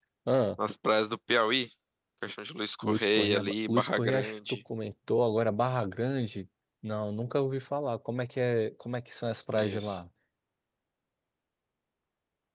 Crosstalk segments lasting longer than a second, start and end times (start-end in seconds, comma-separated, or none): 2.8-4.6